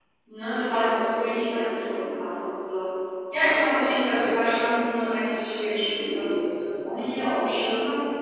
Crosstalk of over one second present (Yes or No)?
No